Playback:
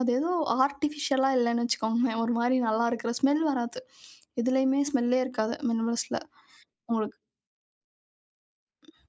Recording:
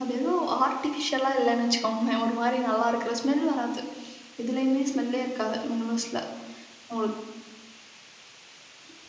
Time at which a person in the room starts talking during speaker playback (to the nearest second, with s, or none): none